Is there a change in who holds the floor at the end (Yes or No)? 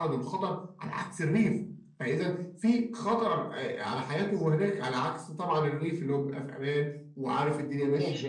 Yes